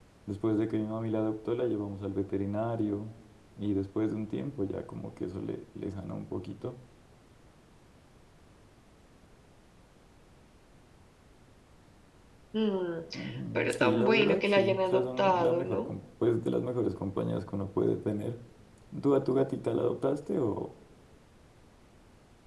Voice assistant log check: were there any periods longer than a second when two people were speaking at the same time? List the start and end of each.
13.6-15.9

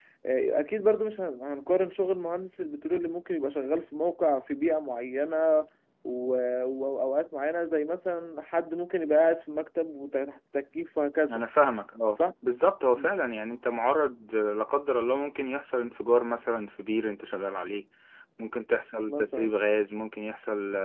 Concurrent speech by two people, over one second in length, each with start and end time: none

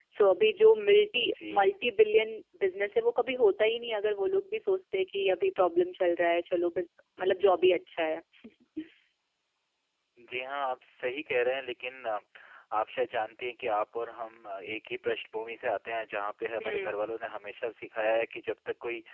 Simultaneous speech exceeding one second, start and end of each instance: none

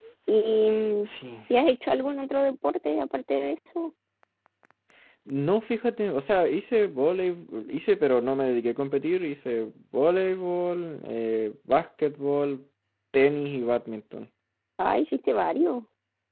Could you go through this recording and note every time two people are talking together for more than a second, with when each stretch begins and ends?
none

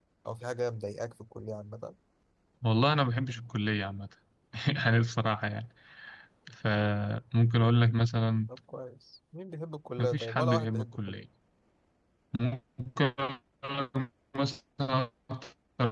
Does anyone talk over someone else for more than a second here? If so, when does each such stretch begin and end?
10.0-11.2

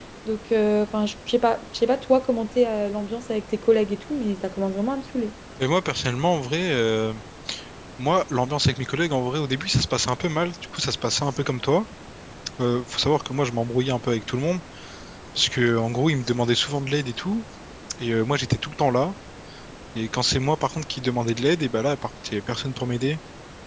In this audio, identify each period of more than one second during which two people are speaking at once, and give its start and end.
none

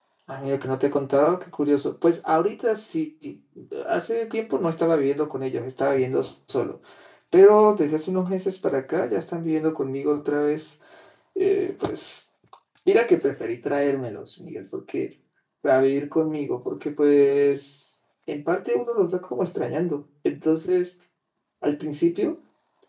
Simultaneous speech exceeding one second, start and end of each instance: none

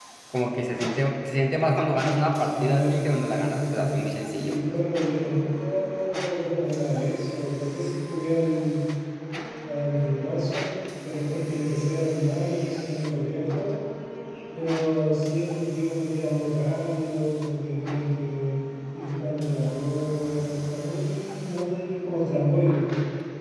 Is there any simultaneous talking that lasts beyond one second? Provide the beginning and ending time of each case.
2.4-3.9

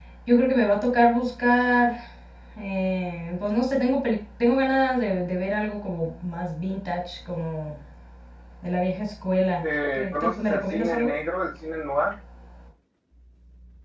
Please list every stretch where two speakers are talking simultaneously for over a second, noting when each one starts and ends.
9.6-11.1

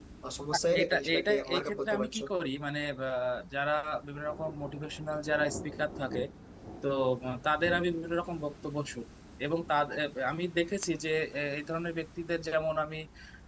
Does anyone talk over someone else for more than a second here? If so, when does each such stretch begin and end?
0.8-2.2

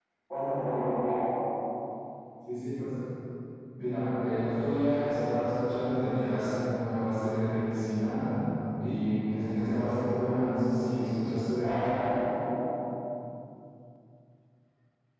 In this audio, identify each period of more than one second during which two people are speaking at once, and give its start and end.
none

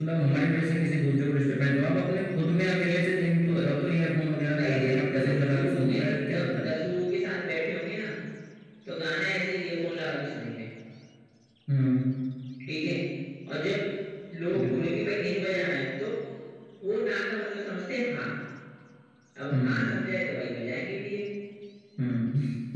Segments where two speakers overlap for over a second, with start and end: 4.5-6.8

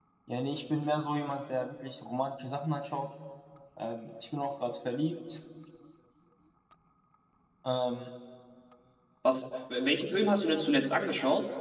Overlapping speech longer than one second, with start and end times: none

